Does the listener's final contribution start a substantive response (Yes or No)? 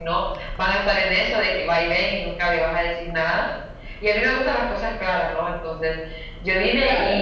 No